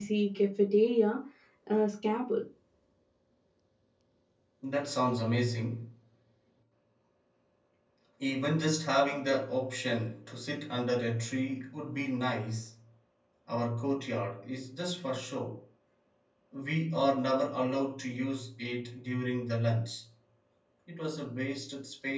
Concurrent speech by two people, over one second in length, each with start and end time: none

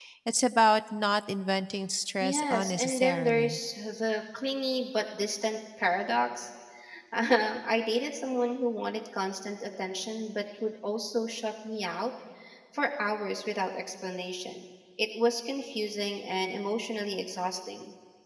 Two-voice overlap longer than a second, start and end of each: 2.2-3.6

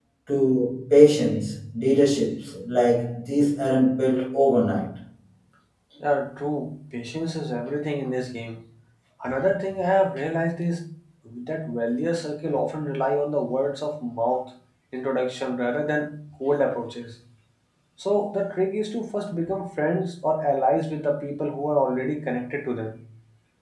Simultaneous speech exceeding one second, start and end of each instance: none

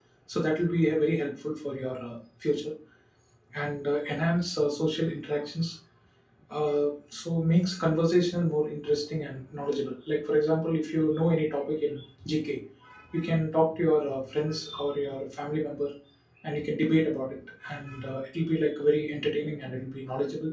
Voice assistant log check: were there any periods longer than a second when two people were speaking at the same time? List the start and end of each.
none

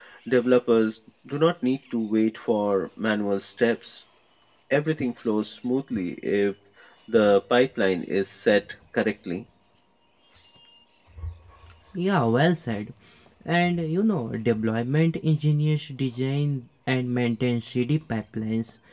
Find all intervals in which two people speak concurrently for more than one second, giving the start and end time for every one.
none

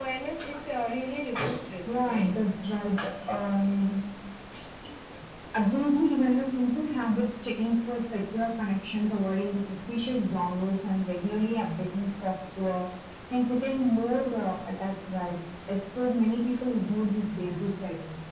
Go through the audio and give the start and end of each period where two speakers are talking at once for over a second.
none

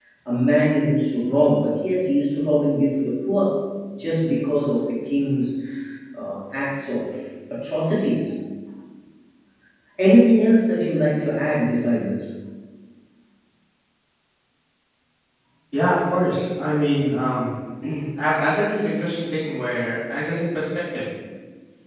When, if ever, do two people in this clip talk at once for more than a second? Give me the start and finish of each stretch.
none

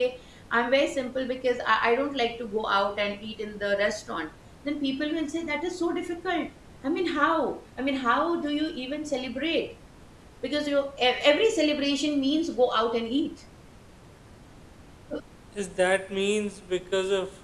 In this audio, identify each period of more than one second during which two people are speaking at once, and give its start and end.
none

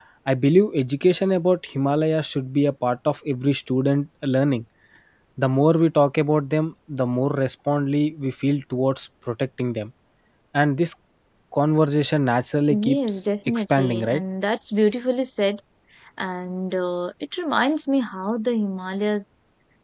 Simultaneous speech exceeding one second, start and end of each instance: 12.7-14.2

